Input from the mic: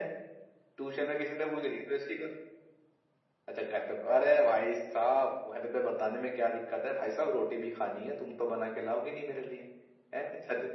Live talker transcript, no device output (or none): none